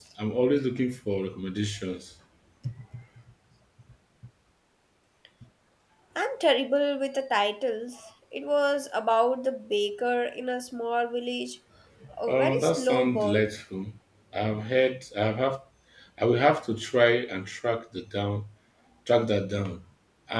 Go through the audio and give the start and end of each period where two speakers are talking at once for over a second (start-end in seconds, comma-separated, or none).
12.3-13.6